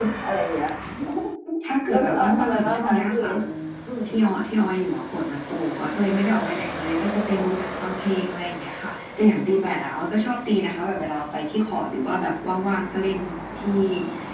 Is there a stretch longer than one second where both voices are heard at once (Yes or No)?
Yes